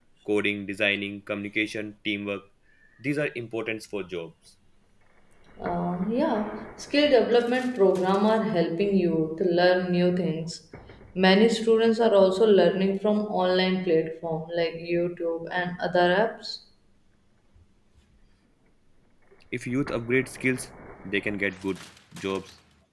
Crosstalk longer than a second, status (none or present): none